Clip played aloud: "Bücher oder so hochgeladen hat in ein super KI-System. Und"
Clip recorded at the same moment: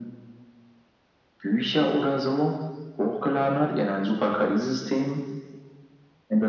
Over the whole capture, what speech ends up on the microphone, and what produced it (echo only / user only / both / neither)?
echo only